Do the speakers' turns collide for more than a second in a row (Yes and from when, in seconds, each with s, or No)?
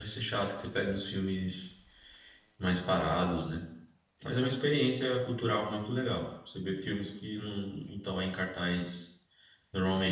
No